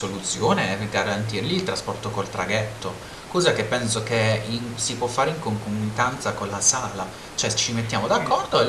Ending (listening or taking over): listening